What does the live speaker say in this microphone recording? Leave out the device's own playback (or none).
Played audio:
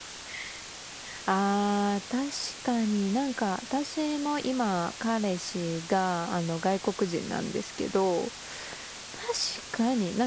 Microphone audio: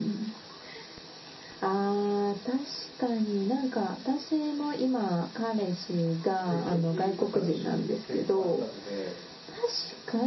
で、曲とかの趣味も結構あったので、